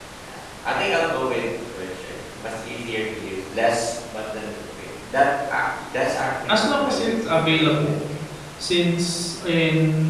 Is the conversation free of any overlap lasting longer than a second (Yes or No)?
No